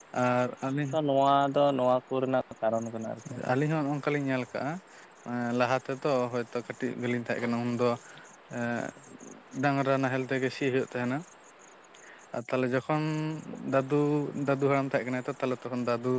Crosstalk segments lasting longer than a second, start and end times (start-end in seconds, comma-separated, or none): none